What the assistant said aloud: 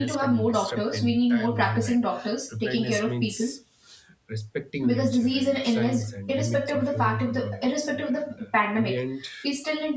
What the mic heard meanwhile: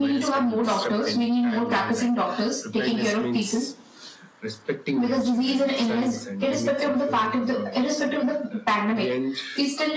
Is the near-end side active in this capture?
No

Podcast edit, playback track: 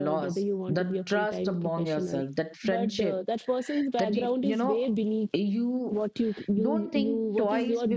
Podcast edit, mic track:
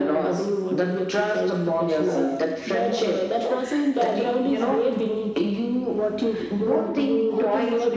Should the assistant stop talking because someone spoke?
No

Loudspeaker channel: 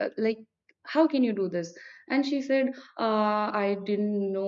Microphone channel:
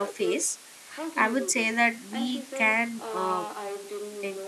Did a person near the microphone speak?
Yes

